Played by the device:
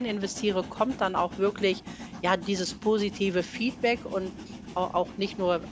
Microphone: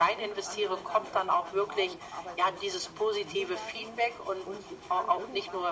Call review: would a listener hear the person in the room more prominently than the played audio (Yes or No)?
No